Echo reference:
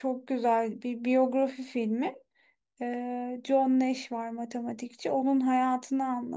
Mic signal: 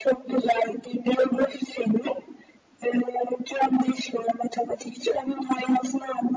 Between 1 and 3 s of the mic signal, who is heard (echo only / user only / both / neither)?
echo only